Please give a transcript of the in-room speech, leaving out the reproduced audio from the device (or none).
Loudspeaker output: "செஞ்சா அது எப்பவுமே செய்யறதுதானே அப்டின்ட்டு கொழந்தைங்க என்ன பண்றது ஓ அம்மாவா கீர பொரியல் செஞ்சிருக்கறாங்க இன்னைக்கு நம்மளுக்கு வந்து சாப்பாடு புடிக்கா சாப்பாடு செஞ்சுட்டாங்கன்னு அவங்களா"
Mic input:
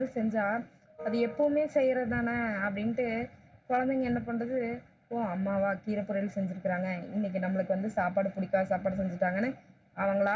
none